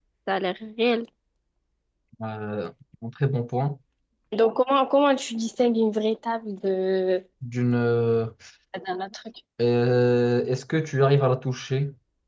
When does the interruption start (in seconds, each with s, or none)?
none